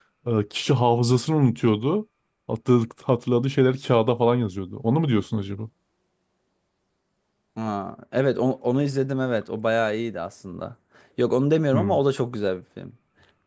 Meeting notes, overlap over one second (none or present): none